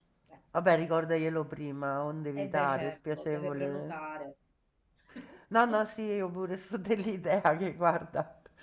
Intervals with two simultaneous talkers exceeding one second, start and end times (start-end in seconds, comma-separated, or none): 2.5-4.0